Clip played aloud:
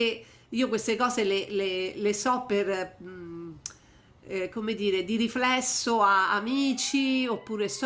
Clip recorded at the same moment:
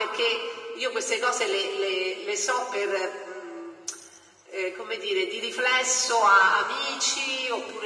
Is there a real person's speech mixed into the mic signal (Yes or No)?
No